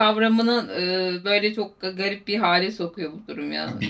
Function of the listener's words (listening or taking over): taking over